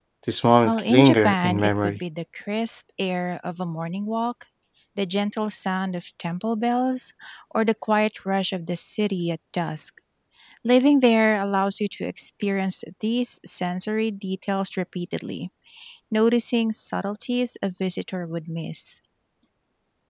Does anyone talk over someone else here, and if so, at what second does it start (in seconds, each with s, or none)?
0.6 s